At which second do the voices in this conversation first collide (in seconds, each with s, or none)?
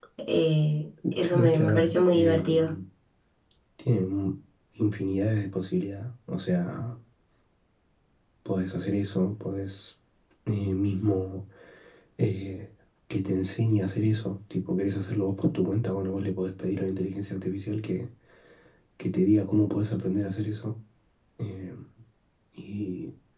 1.2 s